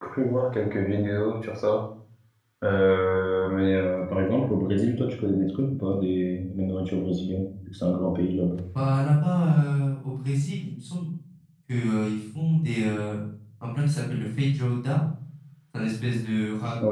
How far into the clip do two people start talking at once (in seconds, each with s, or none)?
none